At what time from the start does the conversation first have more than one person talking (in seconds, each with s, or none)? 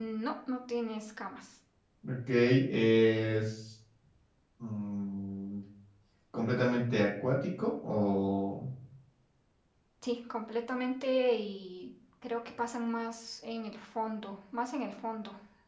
none